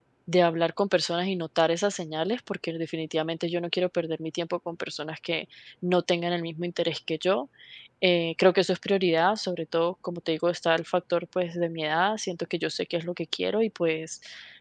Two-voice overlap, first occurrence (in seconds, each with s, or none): none